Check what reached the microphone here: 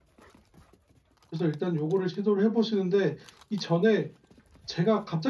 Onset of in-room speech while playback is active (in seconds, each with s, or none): 1.3 s